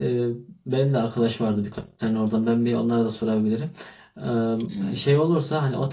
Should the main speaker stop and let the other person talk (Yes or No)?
No